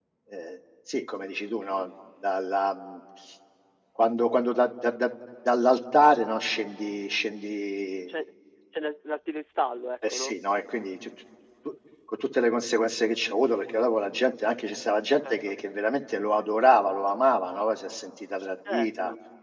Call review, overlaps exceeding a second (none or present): none